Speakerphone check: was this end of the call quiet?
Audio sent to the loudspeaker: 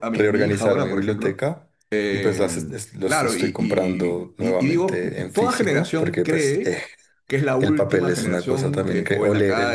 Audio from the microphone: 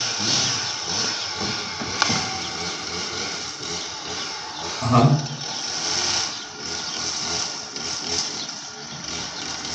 No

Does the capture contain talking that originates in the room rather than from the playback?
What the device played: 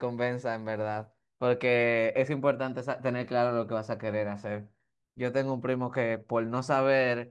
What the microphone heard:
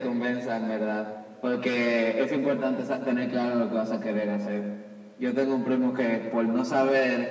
No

